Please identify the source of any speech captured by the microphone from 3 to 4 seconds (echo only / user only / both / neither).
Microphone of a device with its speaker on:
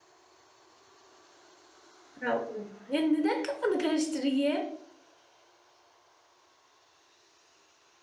user only